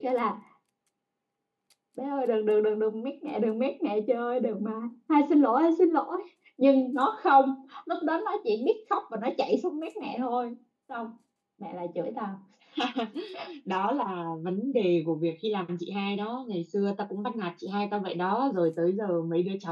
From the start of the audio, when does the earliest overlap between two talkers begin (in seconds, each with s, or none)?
none